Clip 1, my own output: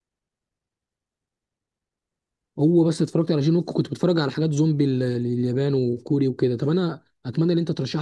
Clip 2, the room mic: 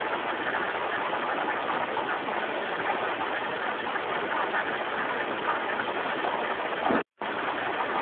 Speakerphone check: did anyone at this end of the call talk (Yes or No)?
No